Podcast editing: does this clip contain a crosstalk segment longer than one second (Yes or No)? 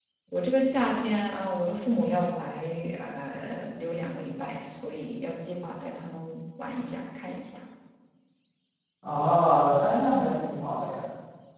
No